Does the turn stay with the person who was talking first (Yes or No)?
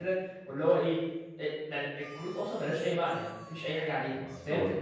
Yes